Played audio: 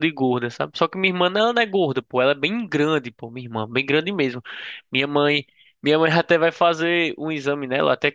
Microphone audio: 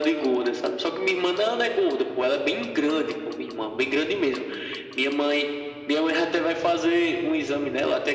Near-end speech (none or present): none